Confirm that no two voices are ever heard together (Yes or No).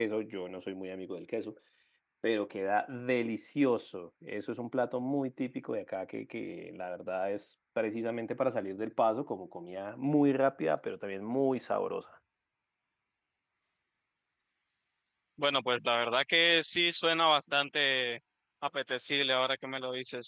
Yes